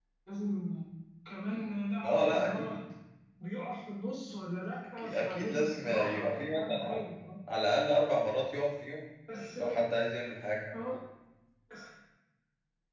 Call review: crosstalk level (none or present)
present